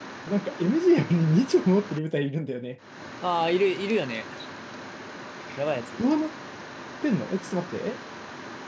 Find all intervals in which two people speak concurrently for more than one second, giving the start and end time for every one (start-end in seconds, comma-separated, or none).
none